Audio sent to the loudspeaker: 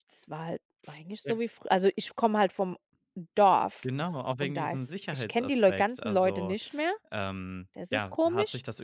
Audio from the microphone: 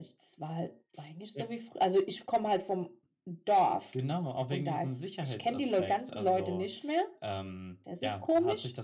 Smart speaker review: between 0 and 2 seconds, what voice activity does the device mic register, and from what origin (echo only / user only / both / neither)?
echo only